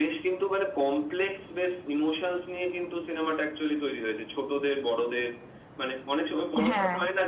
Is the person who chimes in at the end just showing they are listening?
Yes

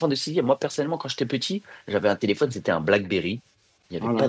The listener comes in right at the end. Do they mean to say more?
No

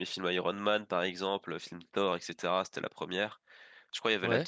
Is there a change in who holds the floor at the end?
No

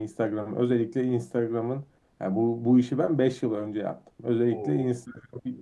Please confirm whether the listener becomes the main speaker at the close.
No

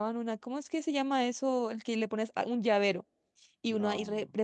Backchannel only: Yes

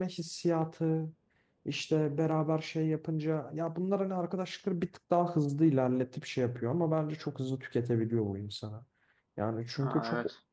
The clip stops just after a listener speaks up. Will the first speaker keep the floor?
Yes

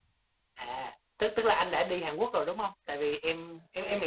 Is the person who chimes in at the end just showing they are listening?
Yes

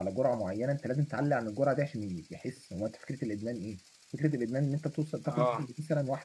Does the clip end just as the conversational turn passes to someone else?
No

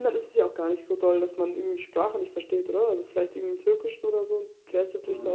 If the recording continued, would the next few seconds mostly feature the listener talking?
Yes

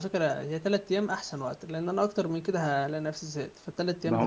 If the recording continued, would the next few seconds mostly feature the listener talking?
Yes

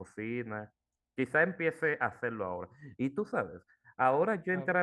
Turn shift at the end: No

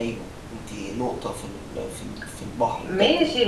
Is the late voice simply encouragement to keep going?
No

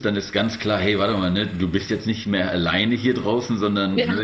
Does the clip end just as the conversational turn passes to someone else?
No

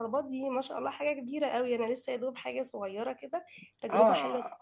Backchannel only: No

